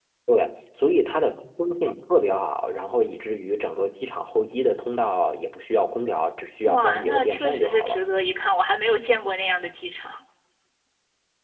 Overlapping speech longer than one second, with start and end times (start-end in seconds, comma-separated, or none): 6.7-8.1